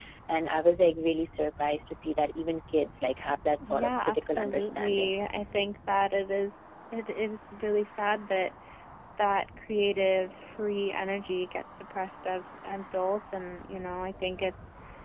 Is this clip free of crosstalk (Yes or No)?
No